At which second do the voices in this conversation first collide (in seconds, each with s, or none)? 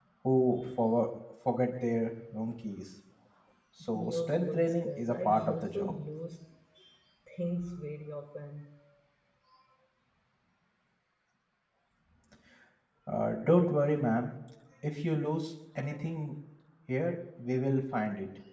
3.9 s